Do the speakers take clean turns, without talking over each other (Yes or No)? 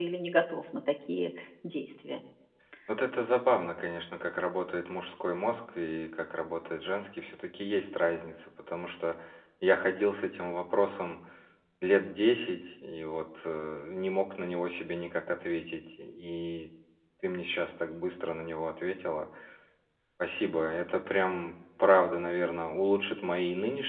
Yes